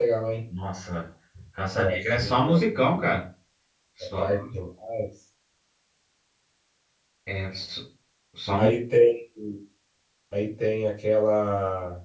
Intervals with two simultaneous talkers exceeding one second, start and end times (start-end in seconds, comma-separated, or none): 1.8-3.1